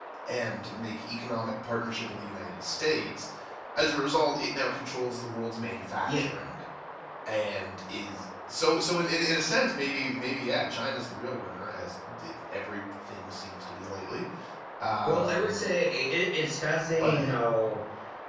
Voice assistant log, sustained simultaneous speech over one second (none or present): none